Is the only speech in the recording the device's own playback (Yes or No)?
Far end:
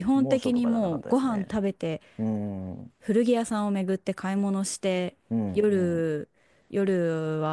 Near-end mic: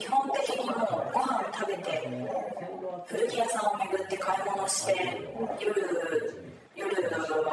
No